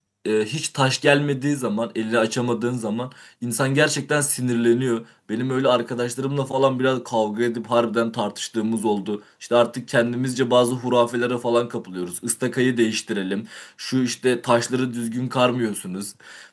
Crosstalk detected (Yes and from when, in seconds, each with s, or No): No